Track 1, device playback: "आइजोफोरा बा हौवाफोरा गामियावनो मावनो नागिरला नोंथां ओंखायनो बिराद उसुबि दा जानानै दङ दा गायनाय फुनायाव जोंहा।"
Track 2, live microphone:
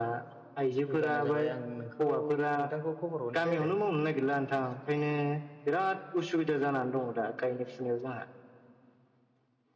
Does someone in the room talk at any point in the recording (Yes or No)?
Yes